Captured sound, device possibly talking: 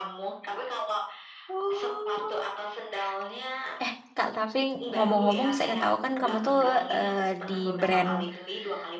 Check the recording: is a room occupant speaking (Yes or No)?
Yes